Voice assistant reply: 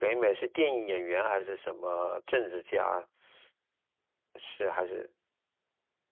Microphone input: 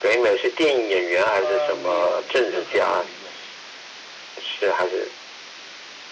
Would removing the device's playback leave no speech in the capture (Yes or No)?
No